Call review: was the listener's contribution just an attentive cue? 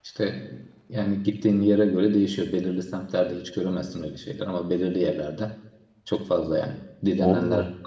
Yes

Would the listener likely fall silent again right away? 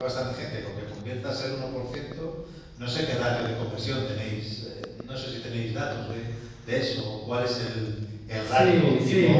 No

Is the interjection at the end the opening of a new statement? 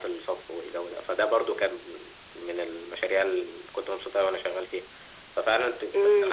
Yes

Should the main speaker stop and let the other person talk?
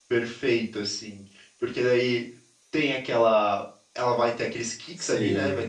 No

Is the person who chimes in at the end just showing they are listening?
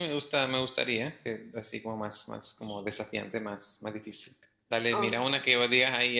Yes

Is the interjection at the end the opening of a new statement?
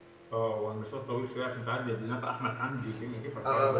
Yes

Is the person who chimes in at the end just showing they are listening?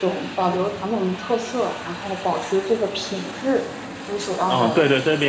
No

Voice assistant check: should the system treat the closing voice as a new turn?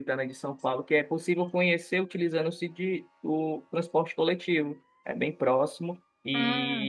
No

